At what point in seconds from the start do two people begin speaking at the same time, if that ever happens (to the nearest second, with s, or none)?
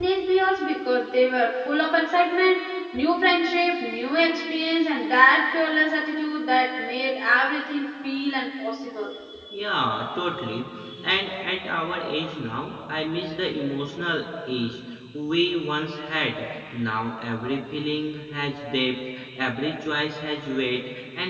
none